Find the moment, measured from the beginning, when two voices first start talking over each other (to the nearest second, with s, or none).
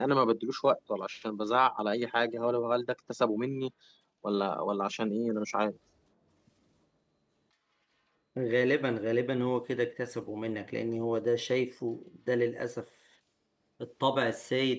none